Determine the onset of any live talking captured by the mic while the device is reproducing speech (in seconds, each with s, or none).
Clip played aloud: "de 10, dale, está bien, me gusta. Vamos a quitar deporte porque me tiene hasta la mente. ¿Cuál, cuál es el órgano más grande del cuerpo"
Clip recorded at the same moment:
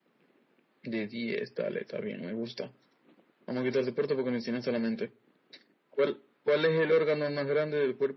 none